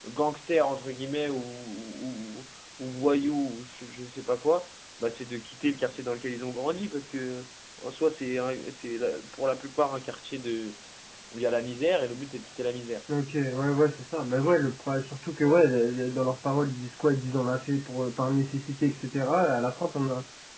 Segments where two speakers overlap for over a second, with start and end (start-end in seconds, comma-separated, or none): none